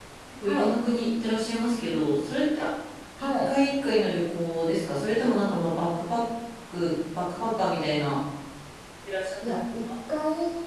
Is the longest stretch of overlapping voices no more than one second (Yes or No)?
Yes